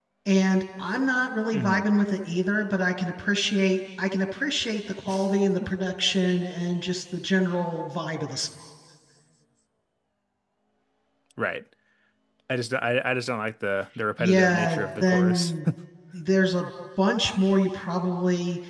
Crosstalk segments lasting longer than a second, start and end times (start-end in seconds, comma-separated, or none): 14.2-15.5